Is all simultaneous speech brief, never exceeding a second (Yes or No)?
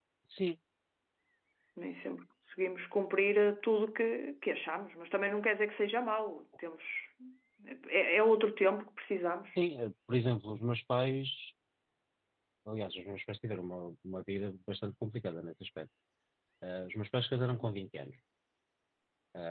Yes